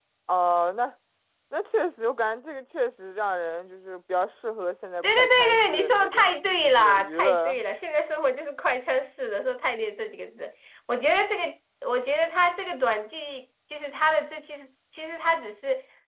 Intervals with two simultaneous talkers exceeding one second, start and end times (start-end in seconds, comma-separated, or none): 5.0-7.6